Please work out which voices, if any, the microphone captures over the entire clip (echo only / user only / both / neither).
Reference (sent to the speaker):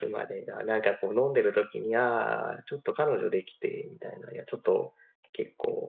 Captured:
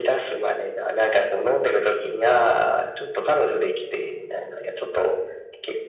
echo only